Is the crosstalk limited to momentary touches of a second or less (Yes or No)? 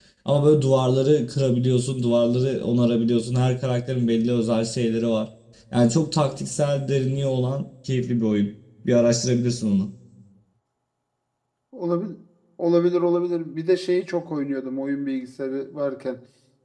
Yes